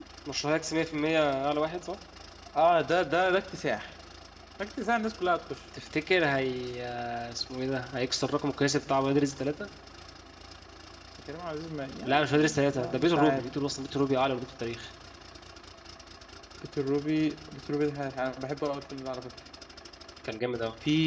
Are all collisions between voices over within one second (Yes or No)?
No